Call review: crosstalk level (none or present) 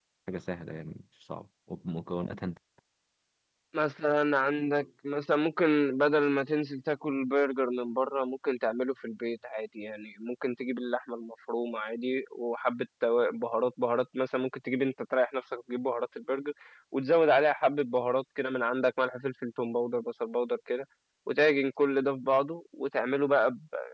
none